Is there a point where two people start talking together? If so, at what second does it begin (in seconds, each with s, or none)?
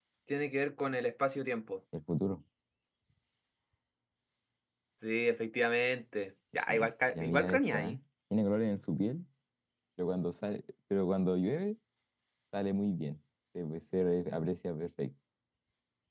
6.7 s